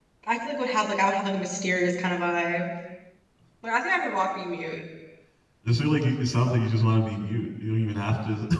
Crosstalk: none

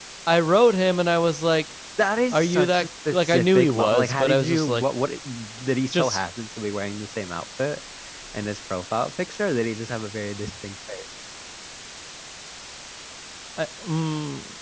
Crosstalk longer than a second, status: present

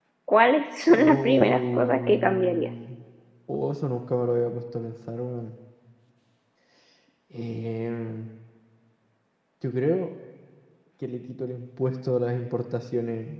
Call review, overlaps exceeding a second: present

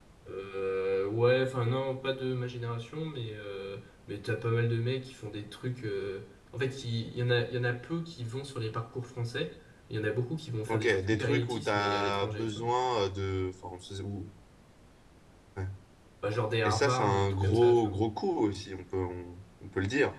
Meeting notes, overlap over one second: present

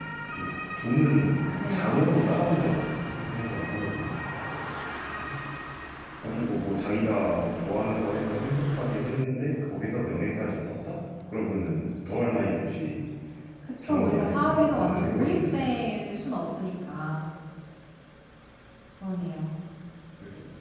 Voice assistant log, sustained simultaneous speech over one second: present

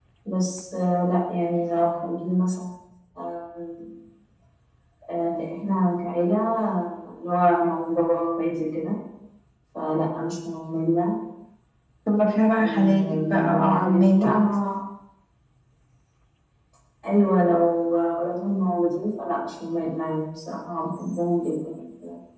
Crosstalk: present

